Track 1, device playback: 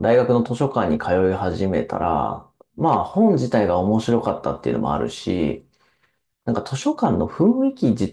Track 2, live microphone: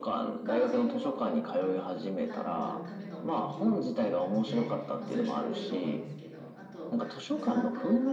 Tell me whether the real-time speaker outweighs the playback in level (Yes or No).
No